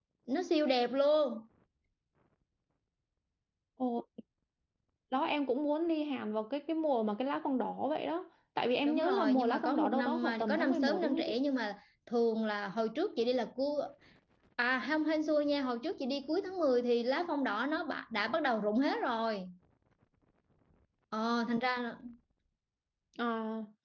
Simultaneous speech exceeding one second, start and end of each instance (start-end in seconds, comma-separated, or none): 8.8-11.4